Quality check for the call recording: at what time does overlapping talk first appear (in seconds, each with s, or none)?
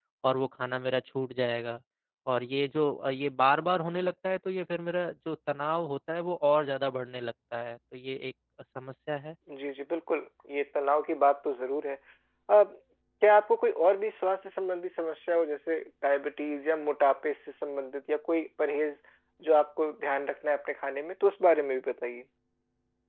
none